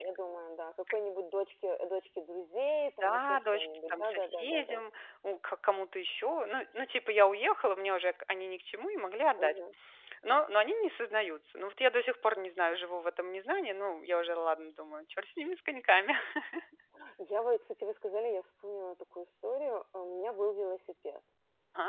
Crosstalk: present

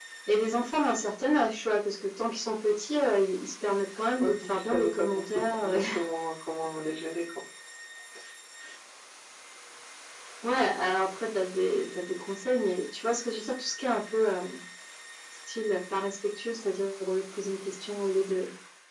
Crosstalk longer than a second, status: present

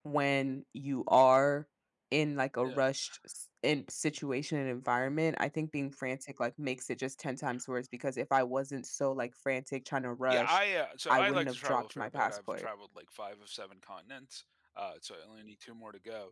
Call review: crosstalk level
present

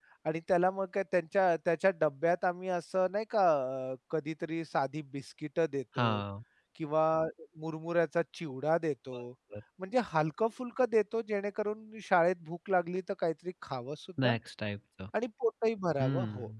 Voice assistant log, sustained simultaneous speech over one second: none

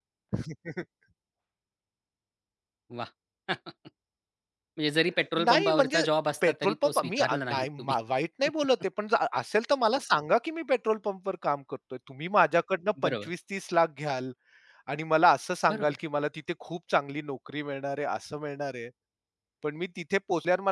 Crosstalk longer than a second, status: present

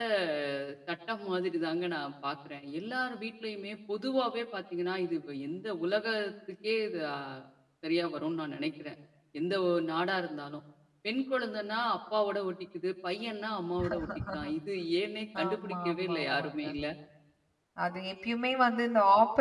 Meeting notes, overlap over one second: present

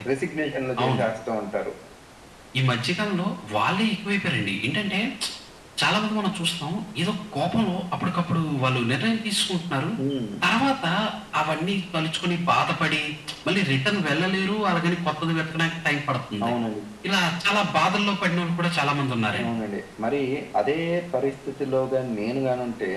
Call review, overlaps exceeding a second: none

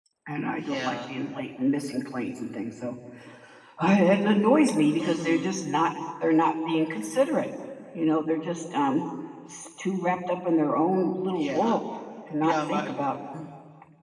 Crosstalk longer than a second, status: none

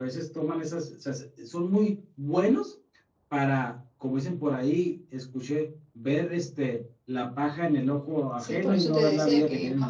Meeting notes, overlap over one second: present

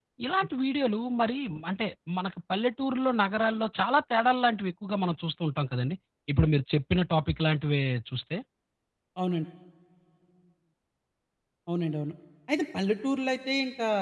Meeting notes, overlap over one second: none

